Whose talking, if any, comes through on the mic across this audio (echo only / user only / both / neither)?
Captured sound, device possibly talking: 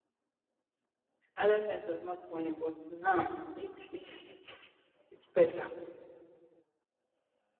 user only